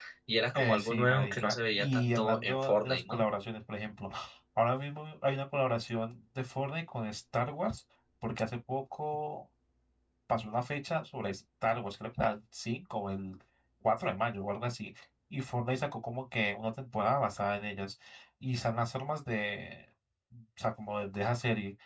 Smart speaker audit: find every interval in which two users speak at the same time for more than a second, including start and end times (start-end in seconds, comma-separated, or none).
0.5-3.2